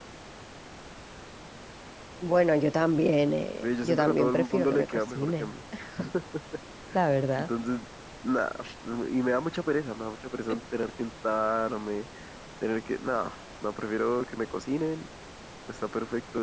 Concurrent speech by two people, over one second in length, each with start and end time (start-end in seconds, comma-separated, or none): 3.6-5.5